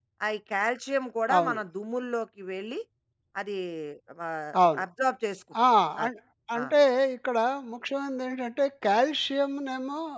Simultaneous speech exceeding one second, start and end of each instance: none

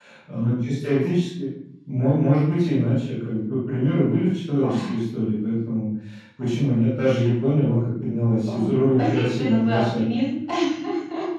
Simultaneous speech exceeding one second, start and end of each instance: 8.5-10.2

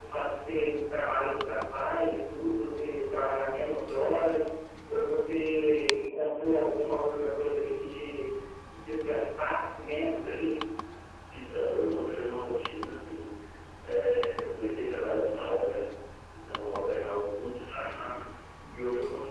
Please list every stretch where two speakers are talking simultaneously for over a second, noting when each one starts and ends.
none

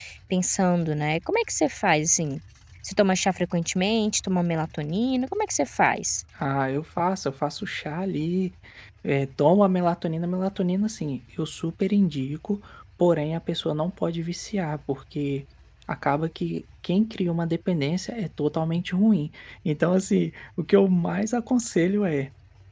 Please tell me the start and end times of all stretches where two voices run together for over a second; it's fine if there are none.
none

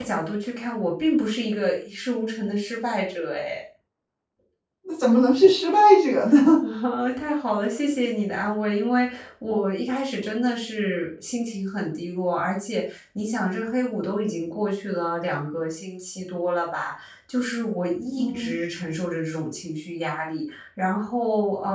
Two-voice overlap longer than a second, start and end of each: none

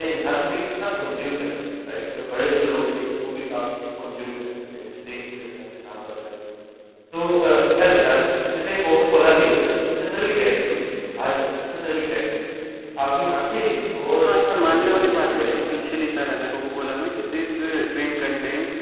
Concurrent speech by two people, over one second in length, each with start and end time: 14.2-16.1

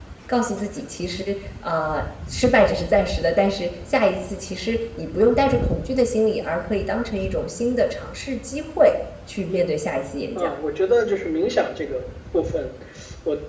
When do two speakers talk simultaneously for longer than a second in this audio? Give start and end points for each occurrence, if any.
none

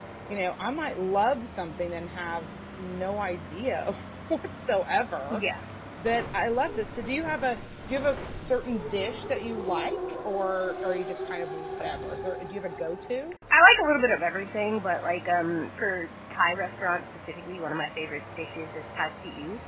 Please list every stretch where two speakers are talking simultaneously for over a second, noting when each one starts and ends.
none

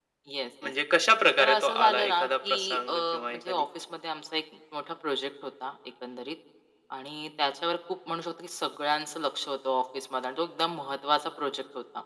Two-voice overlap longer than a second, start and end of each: 1.4-3.7

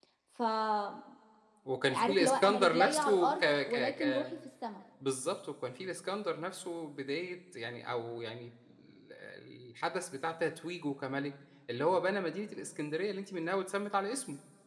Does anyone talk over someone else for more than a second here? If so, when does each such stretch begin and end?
1.9-4.2

